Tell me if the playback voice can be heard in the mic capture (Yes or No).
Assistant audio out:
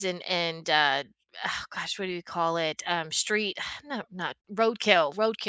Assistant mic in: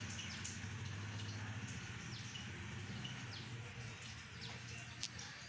No